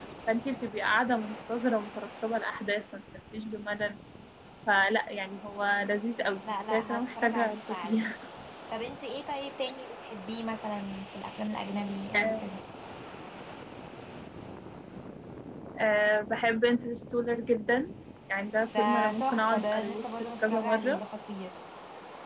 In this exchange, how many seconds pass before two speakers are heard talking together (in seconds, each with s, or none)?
6.5 s